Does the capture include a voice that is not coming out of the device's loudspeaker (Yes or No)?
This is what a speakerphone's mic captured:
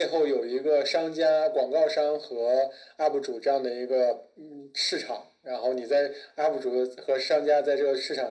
No